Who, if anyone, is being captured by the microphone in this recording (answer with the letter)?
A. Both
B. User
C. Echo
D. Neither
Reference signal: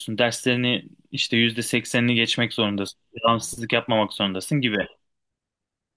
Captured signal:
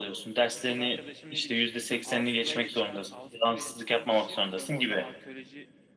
A